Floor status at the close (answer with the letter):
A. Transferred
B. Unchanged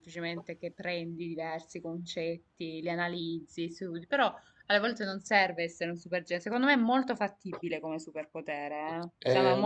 A